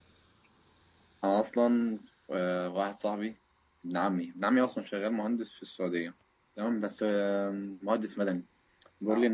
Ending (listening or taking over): listening